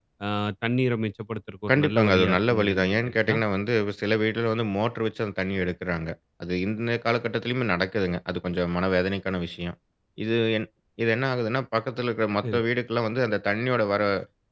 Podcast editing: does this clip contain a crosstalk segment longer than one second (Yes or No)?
Yes